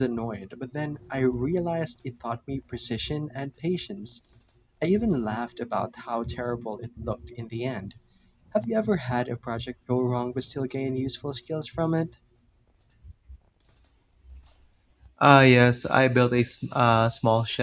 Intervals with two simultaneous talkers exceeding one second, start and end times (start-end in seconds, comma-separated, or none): none